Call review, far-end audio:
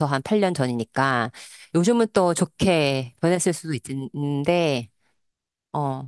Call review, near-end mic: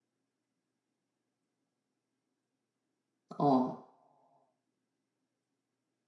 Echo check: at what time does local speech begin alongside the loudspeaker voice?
3.4 s

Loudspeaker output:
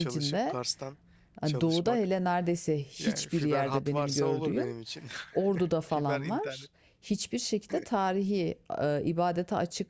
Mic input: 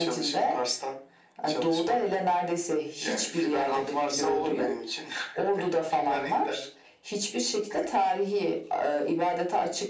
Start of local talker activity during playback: none

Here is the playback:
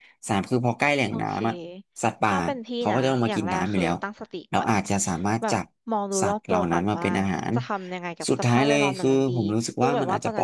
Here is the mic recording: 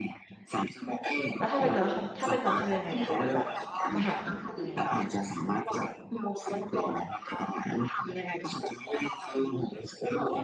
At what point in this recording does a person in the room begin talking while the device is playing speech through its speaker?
1.4 s

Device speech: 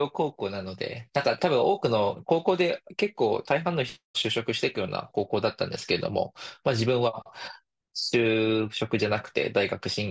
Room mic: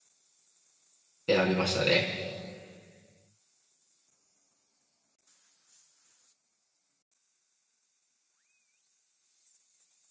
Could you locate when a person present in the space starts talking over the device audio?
1.3 s

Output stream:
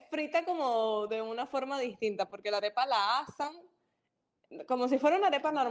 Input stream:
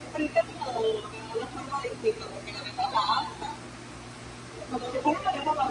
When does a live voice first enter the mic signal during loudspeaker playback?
none

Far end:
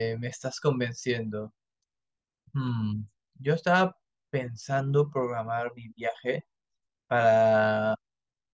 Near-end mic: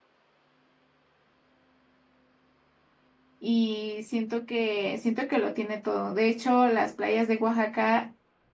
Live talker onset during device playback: 3.4 s

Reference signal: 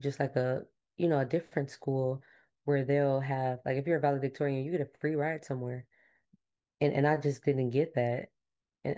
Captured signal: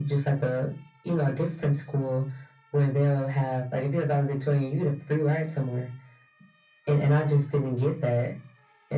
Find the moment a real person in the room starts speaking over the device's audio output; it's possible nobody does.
none

